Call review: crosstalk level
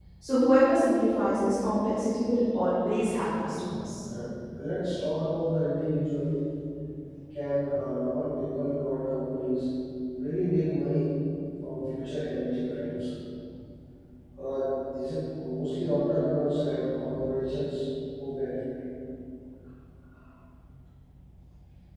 none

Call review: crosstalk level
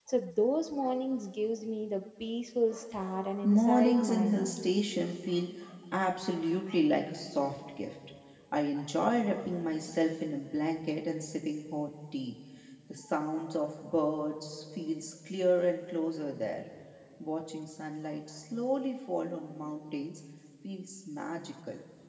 present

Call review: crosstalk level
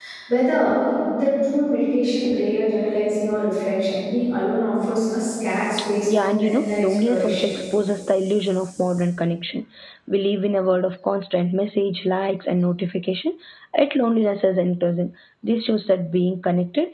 present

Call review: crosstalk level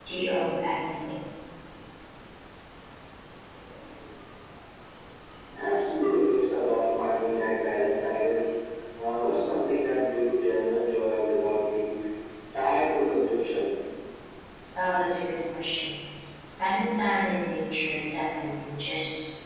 none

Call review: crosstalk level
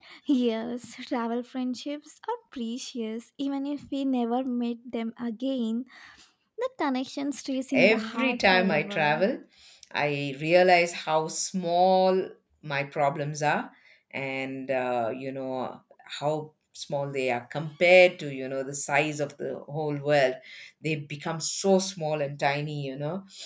present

